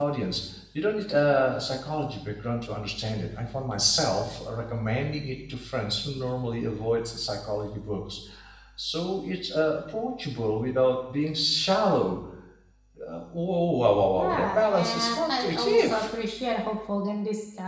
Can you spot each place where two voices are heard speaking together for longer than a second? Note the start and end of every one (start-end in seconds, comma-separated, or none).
14.1-16.0